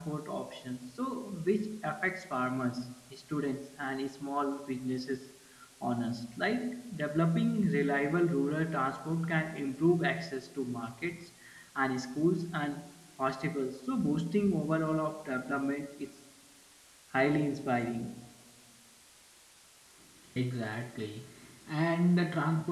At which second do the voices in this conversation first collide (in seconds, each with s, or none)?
none